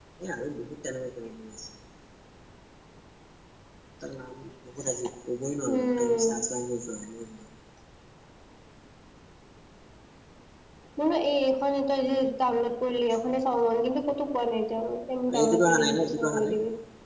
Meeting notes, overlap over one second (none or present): present